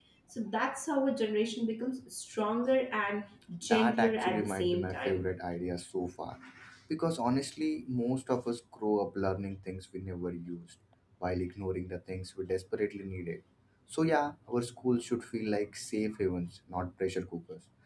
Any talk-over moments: Yes, from 3.6 s

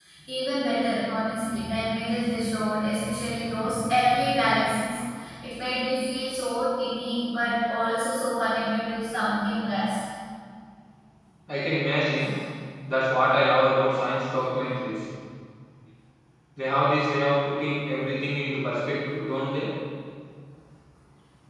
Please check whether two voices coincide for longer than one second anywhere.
No

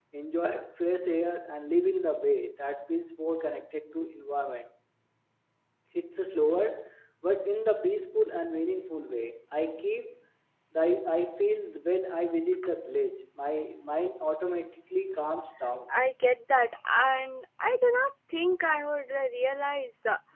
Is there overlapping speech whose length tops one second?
No

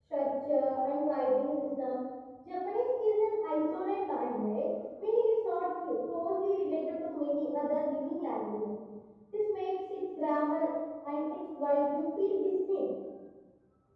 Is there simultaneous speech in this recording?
No

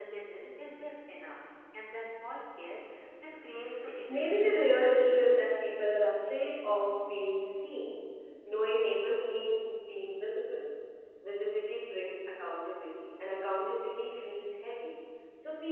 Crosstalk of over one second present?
Yes, from 4.1 s

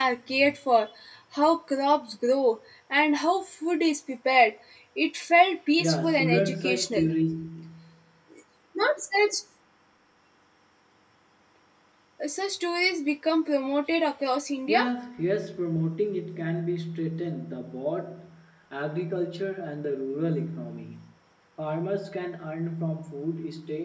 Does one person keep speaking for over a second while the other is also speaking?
Yes, from 5.8 s

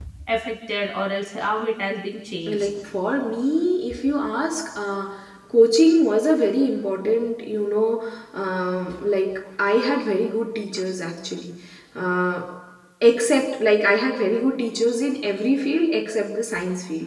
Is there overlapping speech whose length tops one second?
No

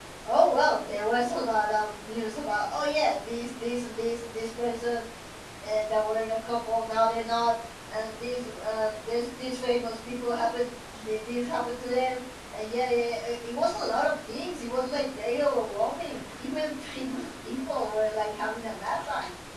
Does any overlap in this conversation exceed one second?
No

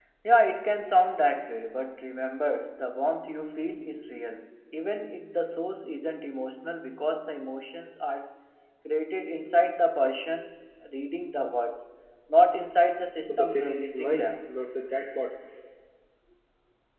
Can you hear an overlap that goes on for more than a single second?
Yes, from 13.2 s

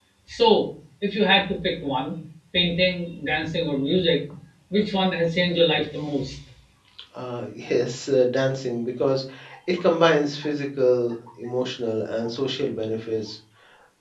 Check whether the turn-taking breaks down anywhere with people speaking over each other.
No

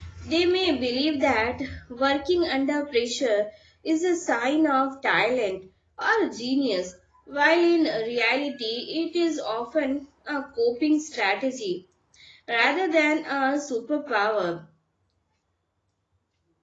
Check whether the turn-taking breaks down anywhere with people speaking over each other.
No

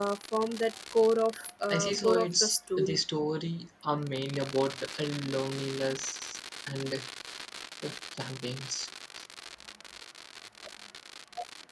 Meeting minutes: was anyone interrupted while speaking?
Yes, from 1.7 s

